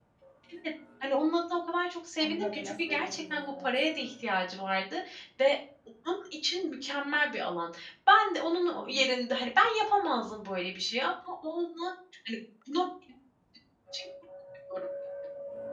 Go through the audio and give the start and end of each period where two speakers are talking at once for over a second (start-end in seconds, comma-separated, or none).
2.2-3.9